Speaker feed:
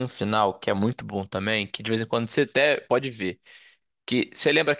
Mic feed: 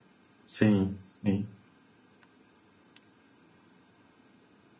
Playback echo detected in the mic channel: No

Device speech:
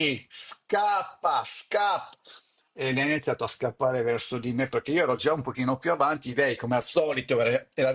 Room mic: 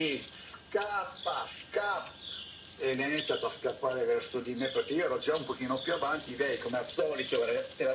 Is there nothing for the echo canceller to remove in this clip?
No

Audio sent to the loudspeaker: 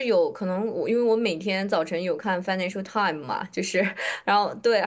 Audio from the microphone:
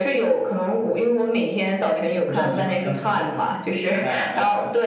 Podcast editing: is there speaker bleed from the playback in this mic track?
Yes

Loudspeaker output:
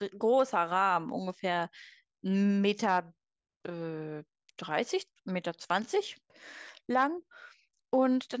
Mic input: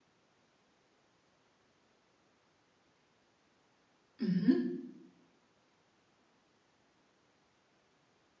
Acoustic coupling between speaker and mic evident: No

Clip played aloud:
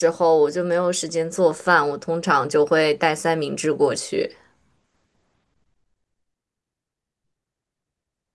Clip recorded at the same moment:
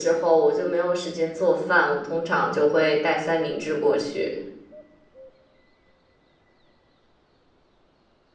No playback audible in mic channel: No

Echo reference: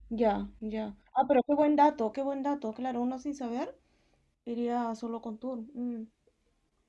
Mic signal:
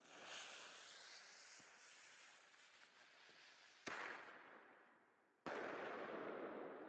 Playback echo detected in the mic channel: No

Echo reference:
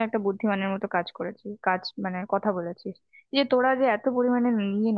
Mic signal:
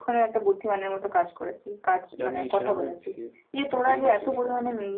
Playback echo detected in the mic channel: Yes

